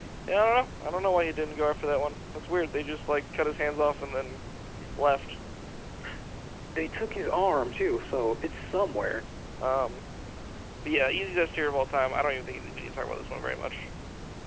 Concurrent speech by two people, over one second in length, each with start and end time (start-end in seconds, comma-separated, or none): none